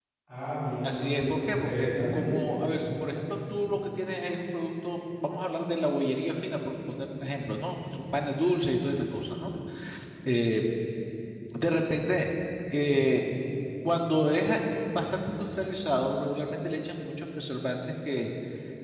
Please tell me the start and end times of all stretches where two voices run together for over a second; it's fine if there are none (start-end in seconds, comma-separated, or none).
0.8-2.3